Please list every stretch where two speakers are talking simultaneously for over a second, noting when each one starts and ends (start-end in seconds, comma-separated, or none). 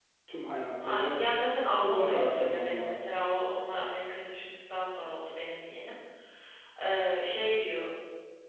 1.8-3.1